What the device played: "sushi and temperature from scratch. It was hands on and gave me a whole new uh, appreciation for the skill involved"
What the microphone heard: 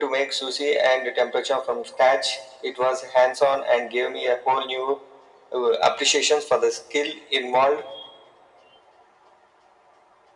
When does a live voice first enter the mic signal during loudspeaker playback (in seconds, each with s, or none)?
none